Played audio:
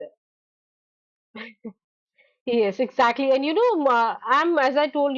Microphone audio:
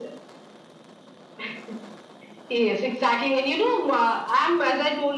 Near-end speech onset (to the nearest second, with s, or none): none